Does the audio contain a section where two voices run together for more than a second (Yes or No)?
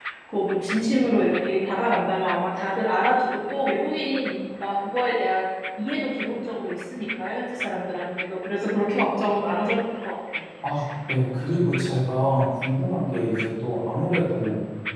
No